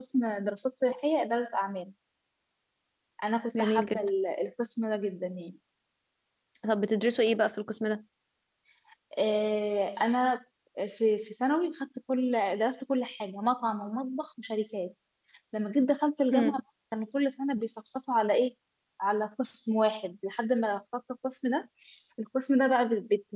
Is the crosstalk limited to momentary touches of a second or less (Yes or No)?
Yes